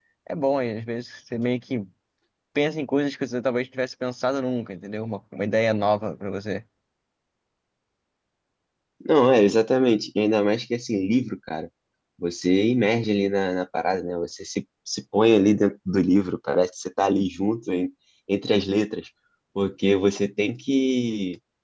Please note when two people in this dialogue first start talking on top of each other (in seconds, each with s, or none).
none